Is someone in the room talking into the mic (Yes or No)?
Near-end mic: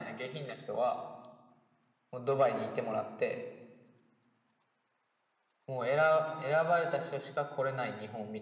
No